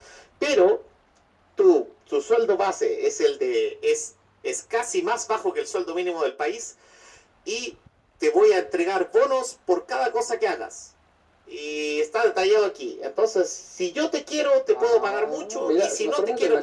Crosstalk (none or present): present